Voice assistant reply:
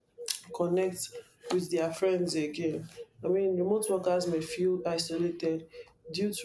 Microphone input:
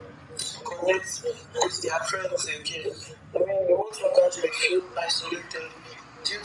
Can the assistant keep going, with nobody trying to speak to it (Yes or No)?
Yes